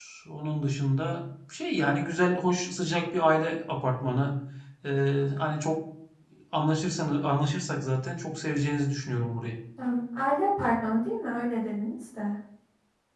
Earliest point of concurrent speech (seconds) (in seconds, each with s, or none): none